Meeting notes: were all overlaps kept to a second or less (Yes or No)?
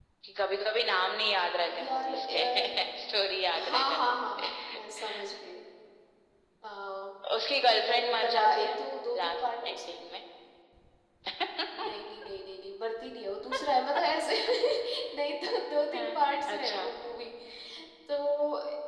No